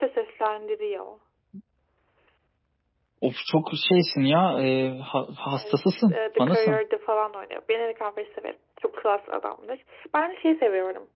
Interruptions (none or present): present